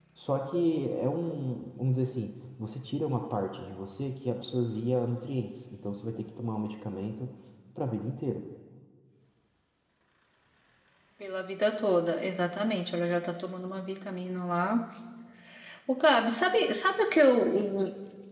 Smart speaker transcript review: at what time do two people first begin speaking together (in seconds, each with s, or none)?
none